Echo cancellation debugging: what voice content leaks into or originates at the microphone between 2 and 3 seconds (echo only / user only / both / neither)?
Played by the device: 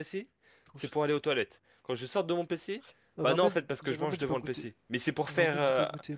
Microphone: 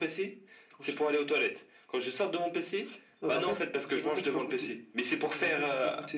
echo only